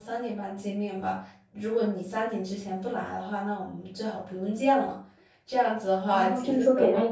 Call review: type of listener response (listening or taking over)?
taking over